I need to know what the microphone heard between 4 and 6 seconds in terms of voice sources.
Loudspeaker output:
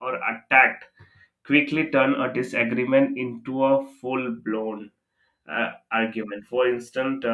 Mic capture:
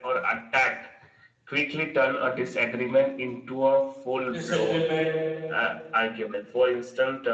both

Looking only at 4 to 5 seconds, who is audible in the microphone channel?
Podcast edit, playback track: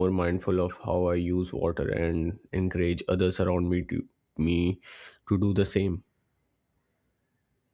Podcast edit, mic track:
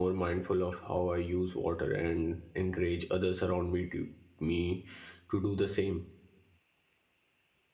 echo only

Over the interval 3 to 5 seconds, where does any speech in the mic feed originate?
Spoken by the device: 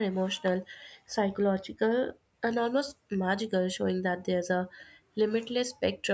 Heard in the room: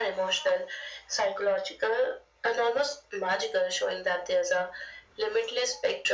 echo only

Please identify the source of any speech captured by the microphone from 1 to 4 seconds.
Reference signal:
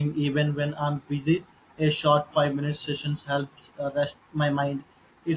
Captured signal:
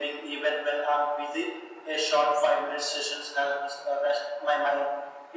echo only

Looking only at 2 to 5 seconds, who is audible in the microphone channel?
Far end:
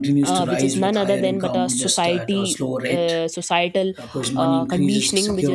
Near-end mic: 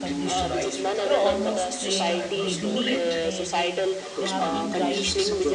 both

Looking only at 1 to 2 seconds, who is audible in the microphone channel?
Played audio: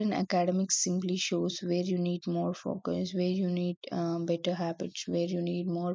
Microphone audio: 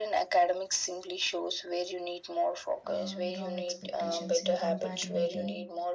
echo only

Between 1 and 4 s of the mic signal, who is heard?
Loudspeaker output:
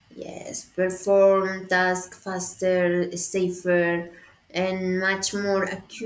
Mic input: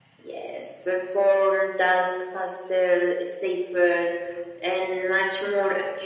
echo only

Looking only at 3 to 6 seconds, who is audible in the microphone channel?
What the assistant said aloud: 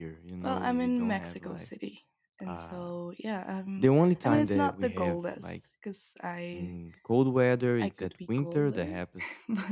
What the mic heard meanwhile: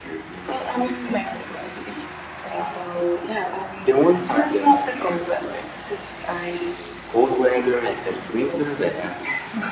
echo only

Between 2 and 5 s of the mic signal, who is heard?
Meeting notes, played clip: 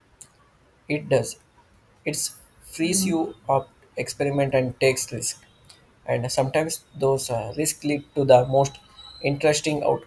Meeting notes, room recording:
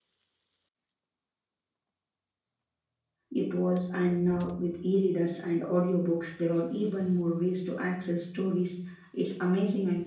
user only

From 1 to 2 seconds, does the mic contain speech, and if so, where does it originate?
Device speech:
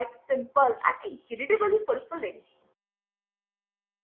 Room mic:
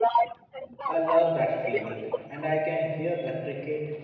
both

